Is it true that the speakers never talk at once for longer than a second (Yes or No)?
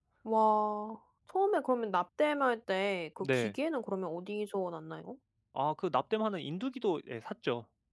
Yes